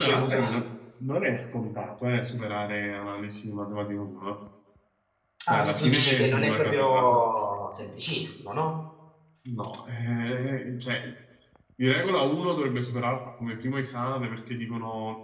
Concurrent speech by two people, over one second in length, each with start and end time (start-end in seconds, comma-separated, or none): 5.5-7.2